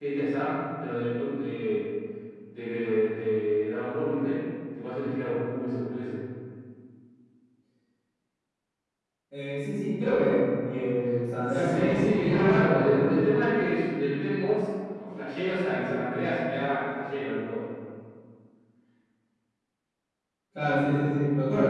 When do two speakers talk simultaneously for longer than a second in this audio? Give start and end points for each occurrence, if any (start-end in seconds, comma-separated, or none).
11.5-13.1